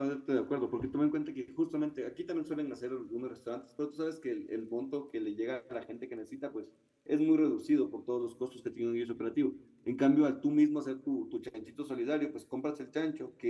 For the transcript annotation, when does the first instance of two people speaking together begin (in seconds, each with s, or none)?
none